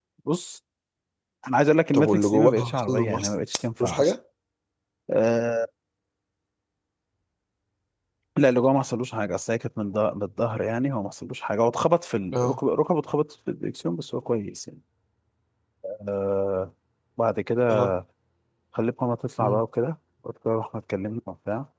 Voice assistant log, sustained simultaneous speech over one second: present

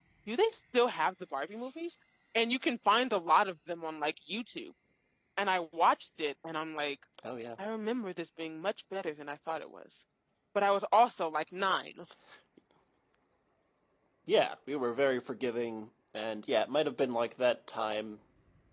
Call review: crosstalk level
none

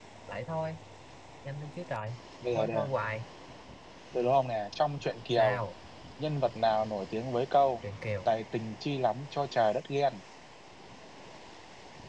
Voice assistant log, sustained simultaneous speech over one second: none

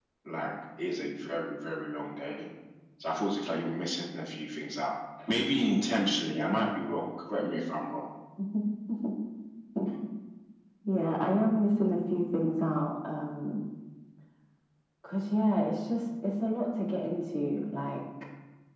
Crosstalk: none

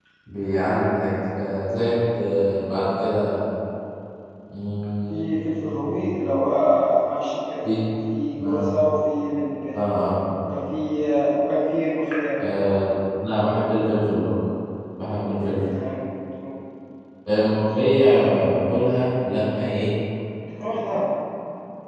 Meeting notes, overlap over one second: none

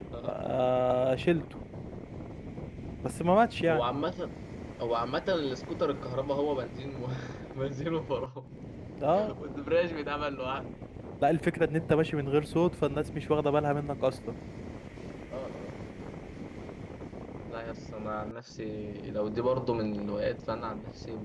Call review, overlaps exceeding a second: none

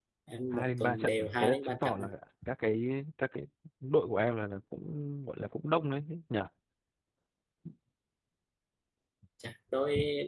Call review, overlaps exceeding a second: present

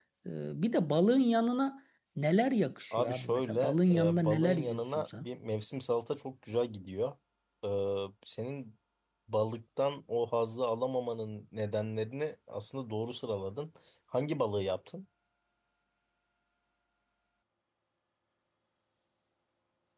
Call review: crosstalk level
present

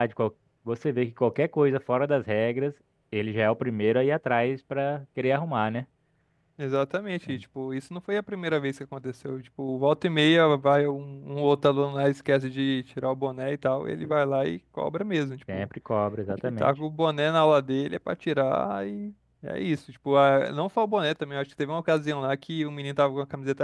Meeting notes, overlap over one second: none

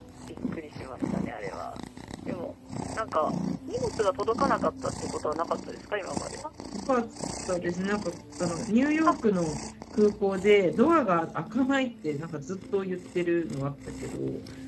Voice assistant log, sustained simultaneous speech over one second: none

